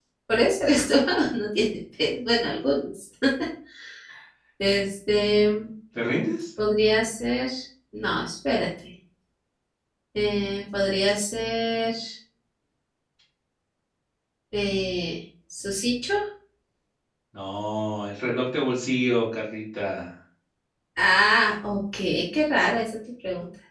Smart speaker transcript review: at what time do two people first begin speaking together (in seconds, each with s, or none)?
none